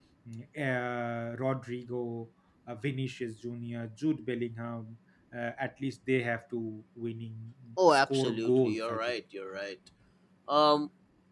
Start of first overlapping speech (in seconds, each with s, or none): 7.8 s